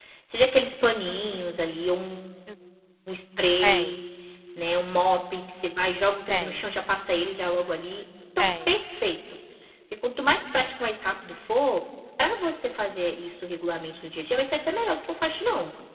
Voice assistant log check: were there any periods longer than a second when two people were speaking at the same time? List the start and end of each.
none

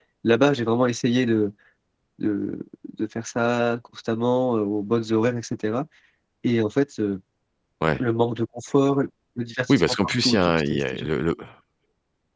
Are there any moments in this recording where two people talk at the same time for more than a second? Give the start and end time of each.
9.7-11.1

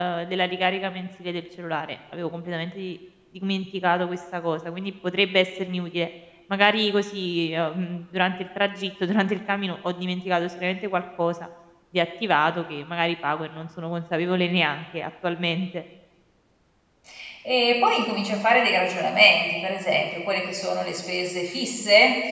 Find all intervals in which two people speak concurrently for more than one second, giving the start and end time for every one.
none

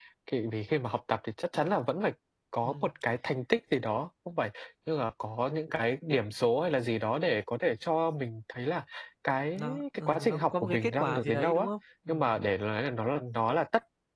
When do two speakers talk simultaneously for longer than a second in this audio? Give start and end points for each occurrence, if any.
9.6-11.7

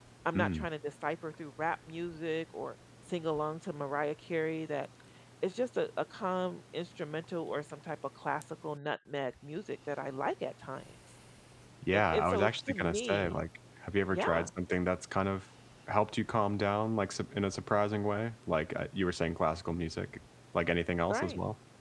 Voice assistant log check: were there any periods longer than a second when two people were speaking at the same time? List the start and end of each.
11.9-13.4

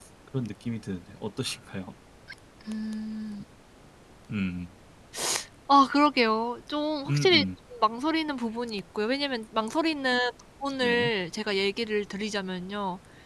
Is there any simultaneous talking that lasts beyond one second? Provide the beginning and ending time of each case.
none

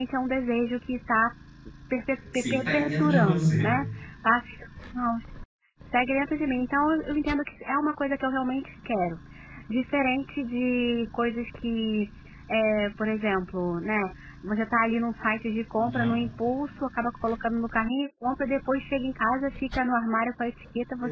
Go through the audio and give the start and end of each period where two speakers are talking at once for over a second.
2.3-3.7

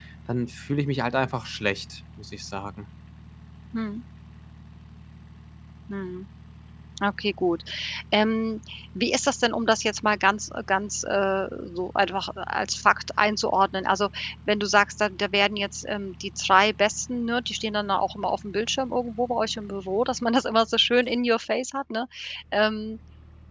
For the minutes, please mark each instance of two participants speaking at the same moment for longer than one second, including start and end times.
none

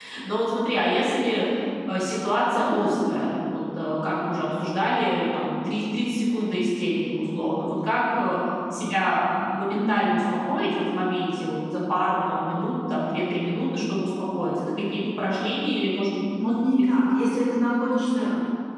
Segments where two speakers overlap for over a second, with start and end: none

